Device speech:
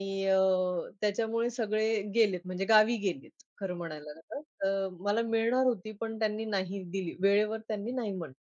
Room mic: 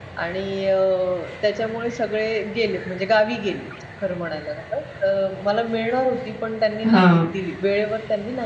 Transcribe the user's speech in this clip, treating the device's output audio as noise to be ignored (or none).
हां.